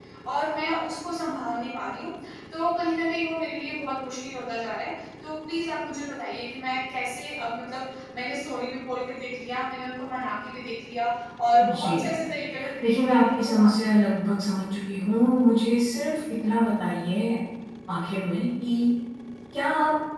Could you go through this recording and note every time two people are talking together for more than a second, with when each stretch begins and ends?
12.8-14.0

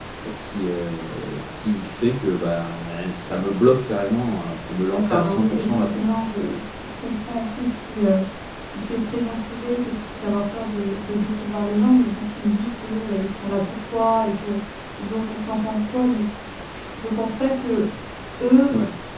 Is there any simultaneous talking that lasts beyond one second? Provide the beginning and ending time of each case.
4.9-6.2

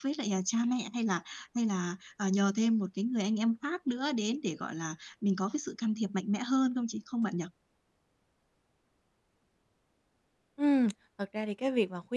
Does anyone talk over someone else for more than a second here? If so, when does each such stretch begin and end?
none

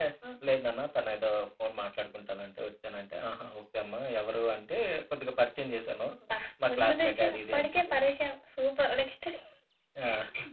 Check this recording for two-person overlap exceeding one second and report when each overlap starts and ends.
6.7-7.9

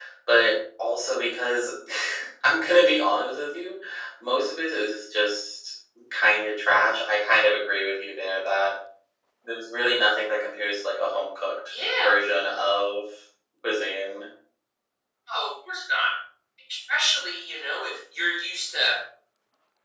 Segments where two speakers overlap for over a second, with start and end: none

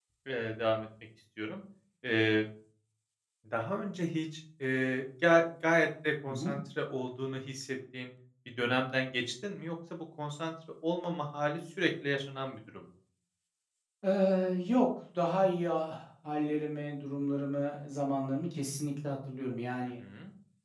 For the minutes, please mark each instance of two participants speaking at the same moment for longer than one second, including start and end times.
none

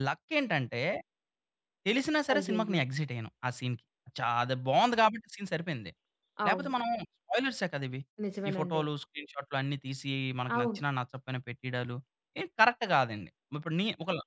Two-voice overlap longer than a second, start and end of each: none

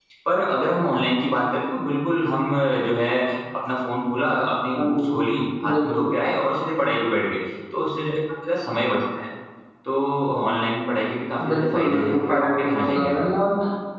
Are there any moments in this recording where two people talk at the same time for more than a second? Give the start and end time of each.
11.4-13.3

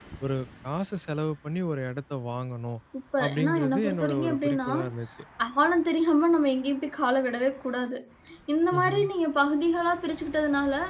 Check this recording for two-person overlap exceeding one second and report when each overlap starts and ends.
3.2-4.7

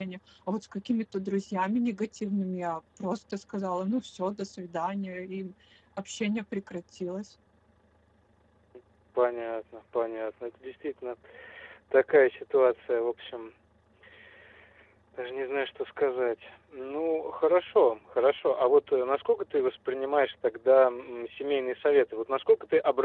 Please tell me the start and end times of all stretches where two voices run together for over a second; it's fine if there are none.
none

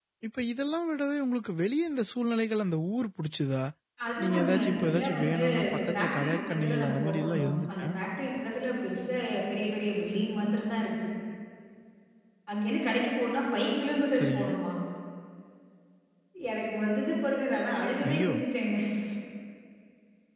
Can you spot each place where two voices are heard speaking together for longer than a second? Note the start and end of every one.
4.2-7.9

